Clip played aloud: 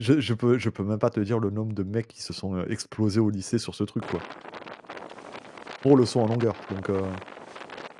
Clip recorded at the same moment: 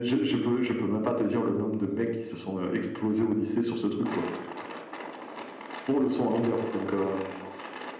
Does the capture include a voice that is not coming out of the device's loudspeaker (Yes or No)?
No